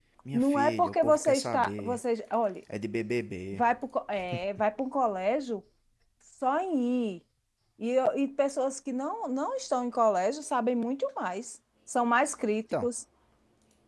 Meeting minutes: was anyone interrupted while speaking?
Yes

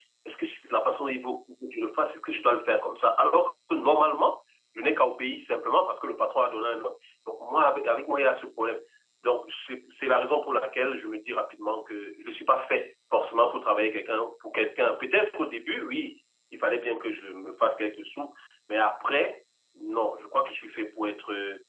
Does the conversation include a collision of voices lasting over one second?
No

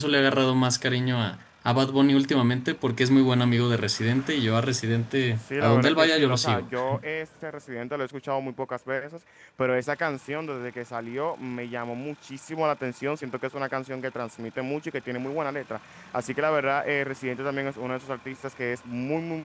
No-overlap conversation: No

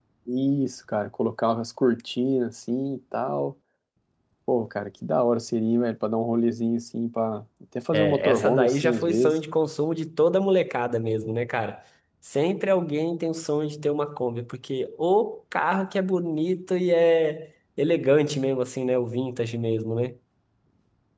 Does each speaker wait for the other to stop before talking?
No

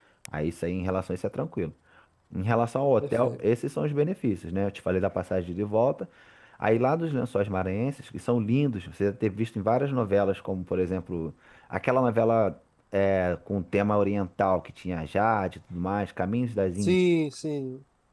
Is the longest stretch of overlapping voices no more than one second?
Yes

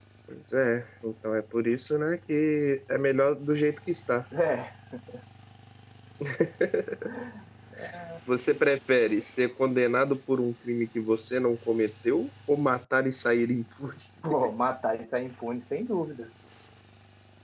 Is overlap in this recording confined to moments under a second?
Yes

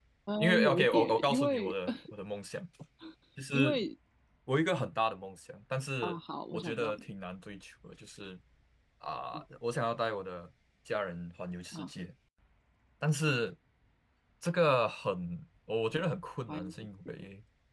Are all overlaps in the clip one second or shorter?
No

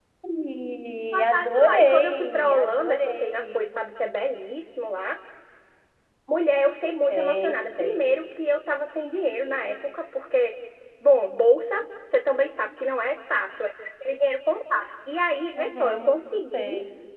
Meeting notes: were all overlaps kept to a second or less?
No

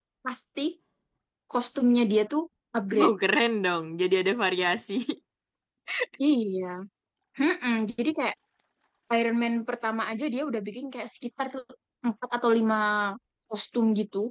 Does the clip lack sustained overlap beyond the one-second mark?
Yes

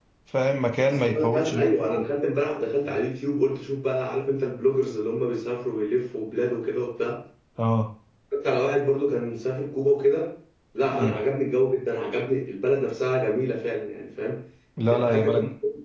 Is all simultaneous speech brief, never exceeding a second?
No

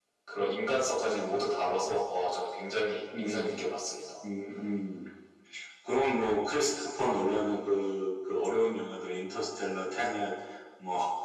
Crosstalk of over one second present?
No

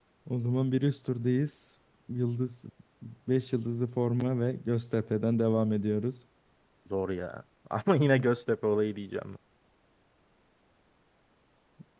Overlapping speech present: No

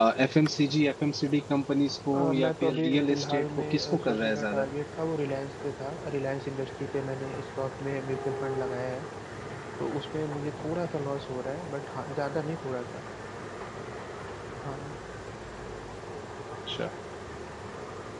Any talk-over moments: Yes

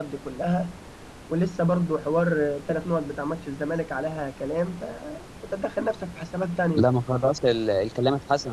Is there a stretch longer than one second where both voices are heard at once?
No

